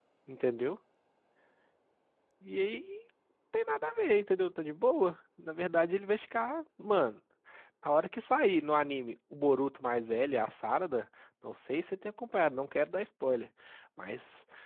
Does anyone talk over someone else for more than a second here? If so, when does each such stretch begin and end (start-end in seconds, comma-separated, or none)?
none